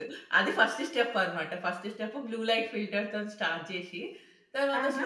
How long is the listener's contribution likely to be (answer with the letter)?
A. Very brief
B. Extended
A